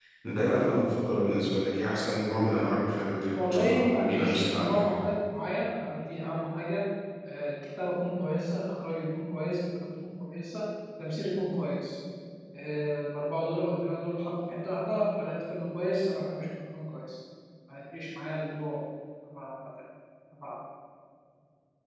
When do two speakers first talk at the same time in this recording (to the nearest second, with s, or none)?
3 s